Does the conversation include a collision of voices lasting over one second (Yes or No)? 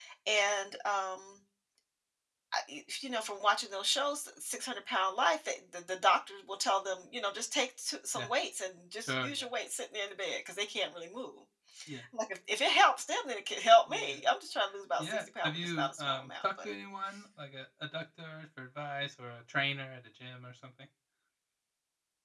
Yes